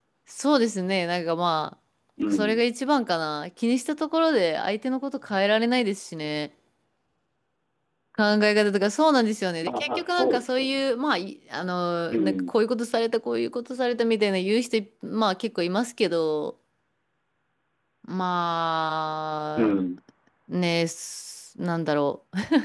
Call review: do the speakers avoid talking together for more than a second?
No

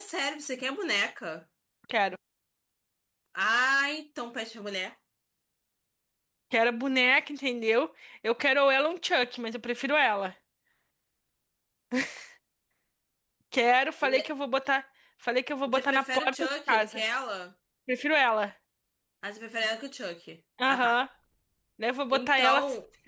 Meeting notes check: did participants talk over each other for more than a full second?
Yes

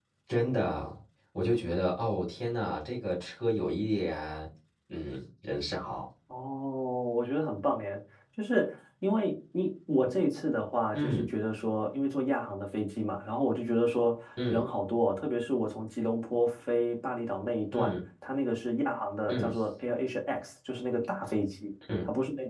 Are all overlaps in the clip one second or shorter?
Yes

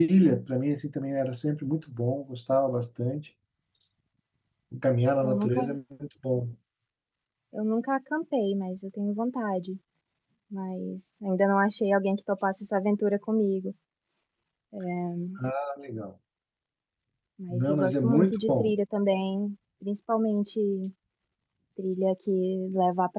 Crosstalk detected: Yes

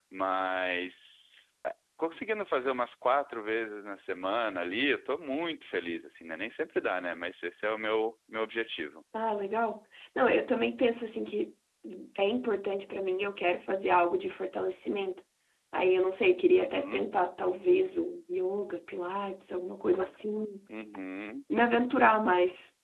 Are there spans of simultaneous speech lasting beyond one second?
No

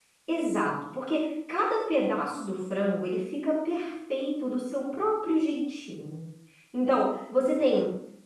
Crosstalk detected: No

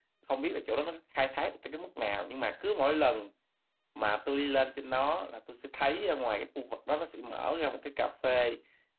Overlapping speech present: No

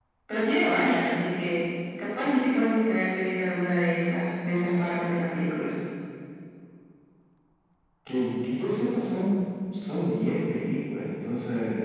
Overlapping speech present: No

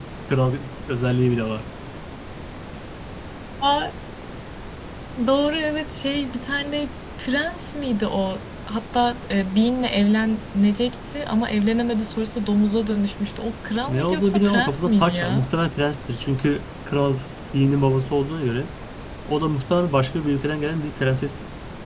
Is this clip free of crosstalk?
No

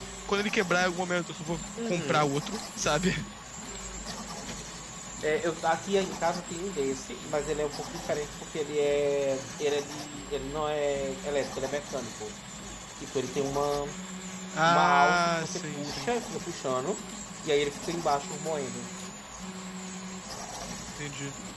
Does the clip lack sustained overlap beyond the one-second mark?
No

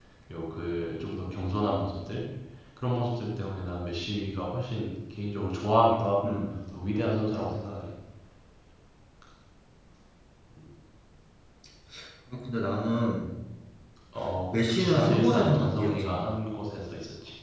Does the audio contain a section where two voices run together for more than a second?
Yes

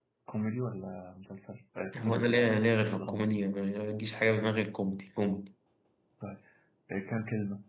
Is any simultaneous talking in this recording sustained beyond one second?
Yes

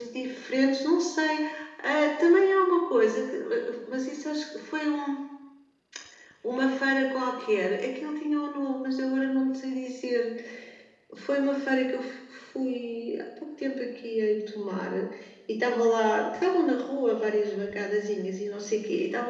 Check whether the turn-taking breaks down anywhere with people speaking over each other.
No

